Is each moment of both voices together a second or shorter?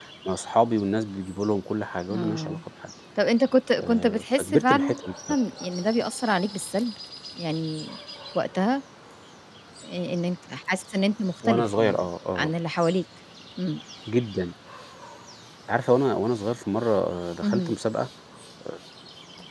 No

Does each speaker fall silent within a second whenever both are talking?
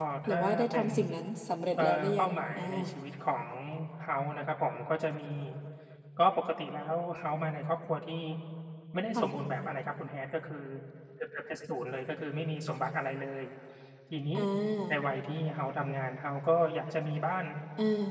No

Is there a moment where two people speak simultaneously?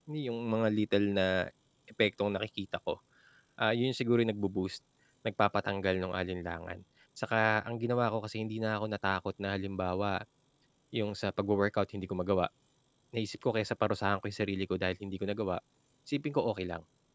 No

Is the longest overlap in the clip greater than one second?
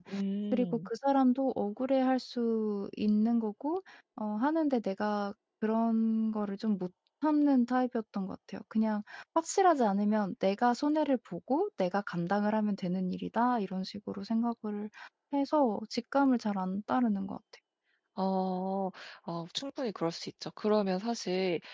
No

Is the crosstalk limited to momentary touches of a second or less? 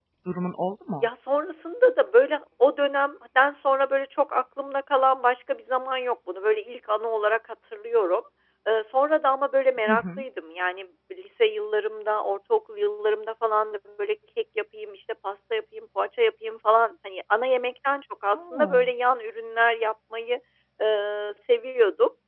Yes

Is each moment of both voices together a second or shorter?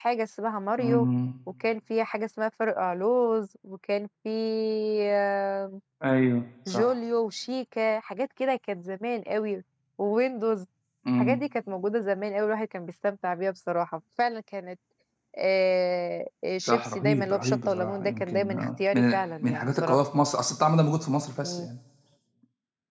No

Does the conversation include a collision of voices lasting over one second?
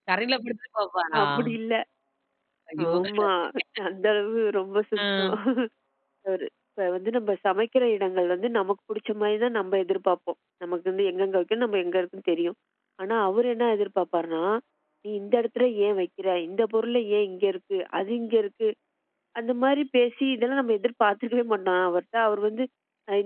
No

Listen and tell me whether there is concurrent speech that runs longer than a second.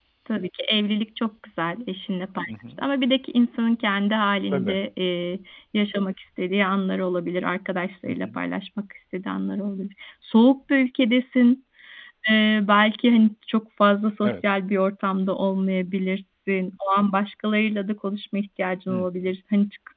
No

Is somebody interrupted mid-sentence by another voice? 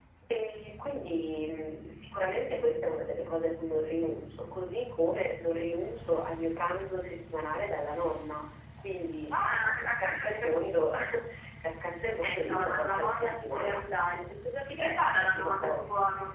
Yes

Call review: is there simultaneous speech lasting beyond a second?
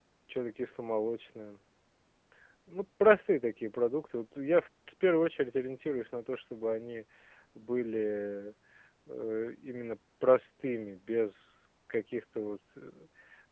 No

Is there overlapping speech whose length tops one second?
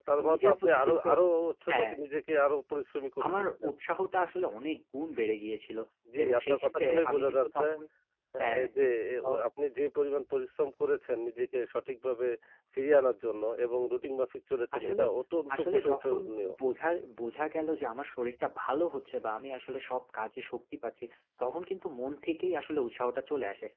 Yes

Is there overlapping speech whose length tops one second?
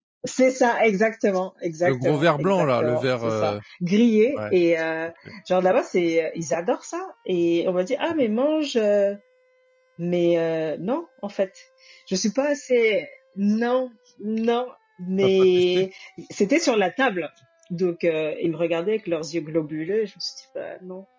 Yes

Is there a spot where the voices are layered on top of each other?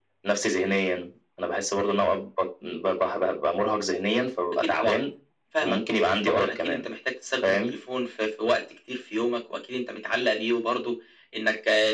Yes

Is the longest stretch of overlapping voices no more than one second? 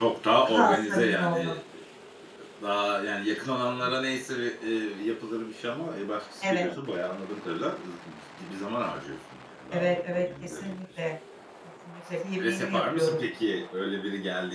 No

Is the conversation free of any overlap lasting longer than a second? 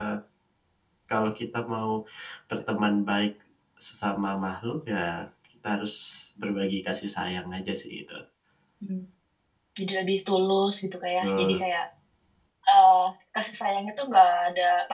Yes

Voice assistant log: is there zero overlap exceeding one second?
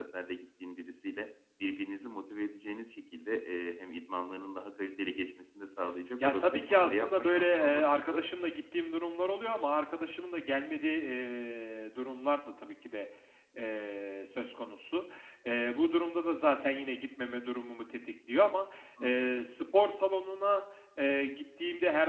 No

